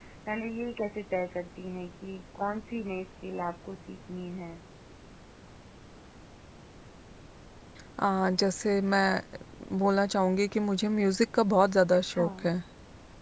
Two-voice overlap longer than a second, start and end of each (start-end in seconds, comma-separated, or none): none